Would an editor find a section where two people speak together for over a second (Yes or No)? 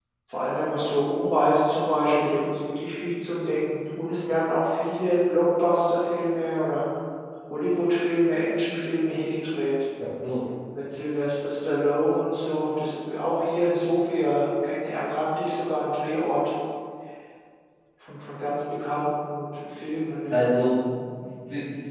No